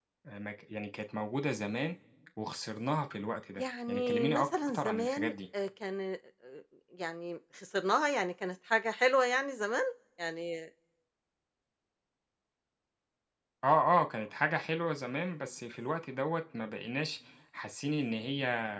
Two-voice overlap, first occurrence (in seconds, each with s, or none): 3.6 s